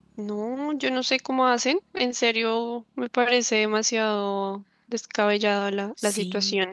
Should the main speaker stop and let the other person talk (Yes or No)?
Yes